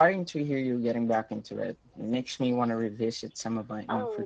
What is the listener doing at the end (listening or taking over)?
taking over